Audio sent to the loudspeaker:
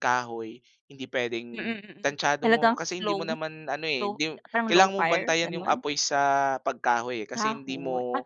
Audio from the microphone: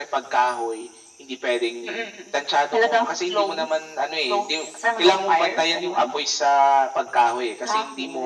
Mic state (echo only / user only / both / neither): echo only